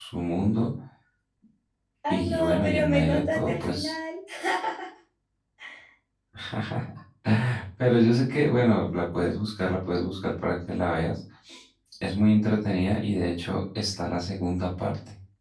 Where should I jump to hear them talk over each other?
2.1 s

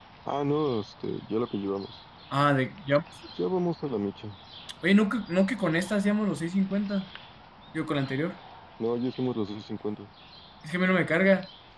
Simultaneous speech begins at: none

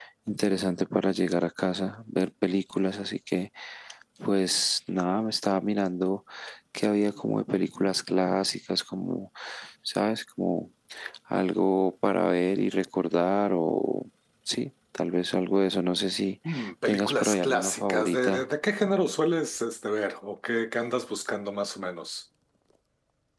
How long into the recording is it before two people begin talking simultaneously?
16.9 s

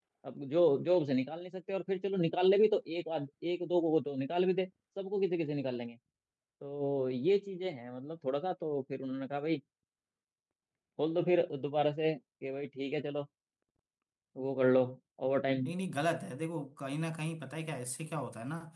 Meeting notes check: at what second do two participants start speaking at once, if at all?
none

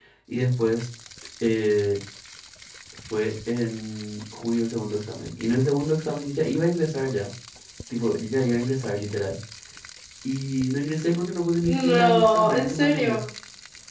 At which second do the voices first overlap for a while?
11.7 s

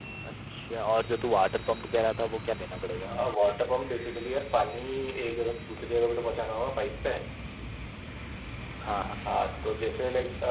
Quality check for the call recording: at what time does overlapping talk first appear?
none

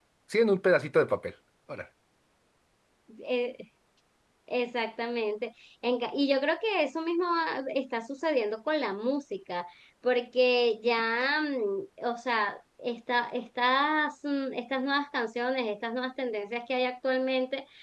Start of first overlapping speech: none

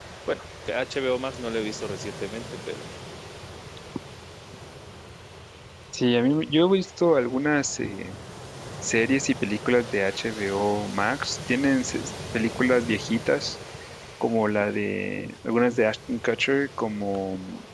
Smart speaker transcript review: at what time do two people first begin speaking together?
none

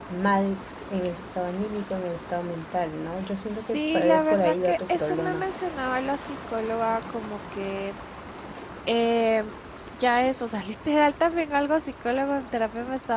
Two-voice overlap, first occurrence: 3.5 s

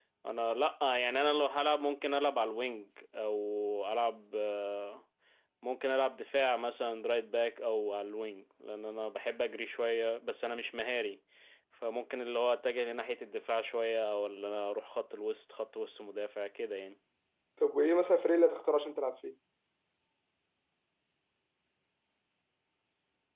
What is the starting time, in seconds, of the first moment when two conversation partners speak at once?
none

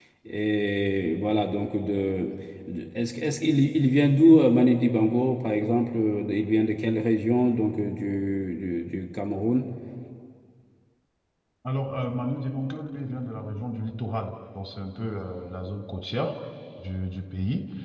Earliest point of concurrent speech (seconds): none

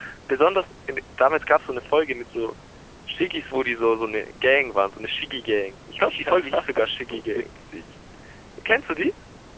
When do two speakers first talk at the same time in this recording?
6.0 s

